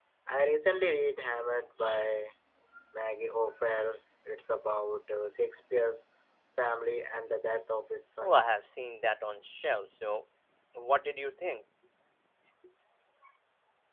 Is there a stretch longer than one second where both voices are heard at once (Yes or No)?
No